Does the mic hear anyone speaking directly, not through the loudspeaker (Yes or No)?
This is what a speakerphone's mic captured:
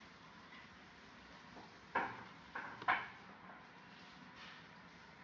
No